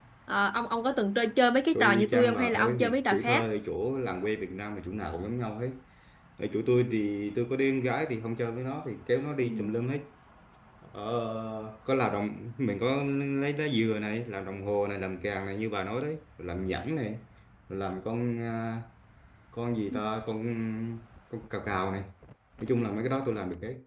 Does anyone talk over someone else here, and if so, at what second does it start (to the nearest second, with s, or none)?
2 s